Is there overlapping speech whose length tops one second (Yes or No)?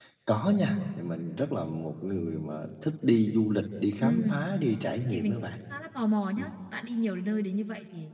No